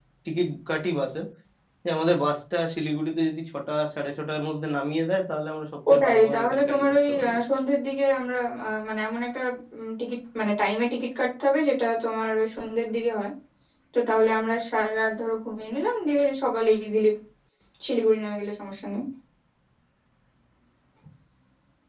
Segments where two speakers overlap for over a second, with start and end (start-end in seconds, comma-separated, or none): 5.9-7.4